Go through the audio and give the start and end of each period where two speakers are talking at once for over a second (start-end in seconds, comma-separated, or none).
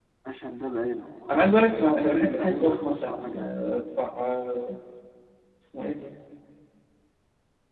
1.3-3.6